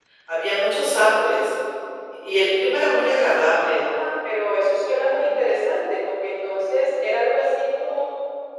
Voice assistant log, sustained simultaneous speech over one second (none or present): none